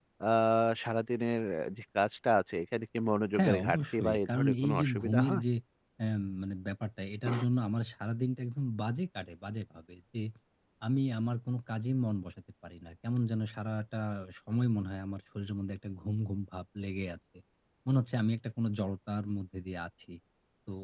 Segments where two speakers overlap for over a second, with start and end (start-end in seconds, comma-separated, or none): 3.4-5.4